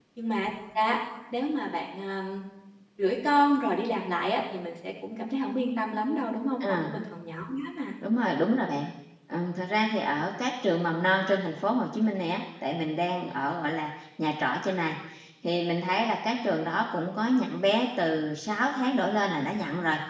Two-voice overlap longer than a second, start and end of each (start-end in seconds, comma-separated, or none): none